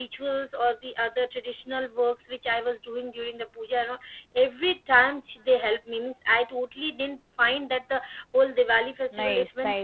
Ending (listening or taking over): taking over